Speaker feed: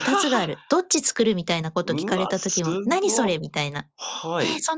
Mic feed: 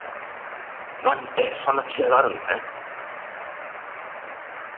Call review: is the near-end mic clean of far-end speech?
Yes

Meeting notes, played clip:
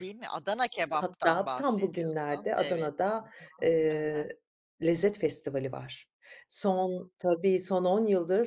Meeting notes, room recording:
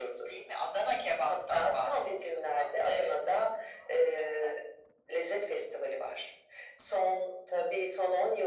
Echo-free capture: No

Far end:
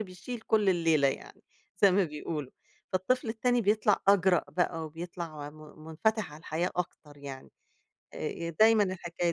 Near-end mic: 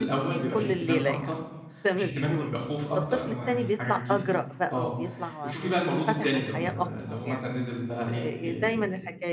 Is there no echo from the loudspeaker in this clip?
No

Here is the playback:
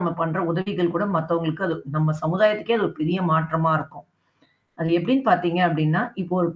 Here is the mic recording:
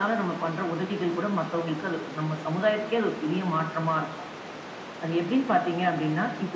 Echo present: Yes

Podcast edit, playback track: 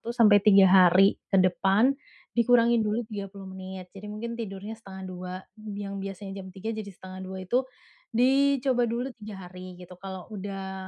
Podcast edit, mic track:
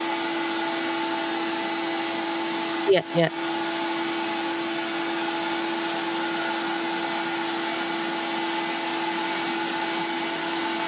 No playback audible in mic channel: Yes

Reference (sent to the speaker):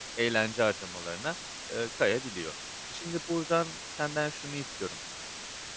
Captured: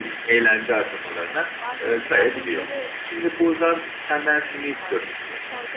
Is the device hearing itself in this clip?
Yes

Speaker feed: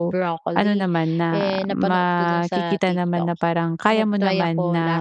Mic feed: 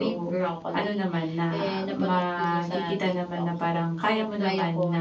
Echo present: Yes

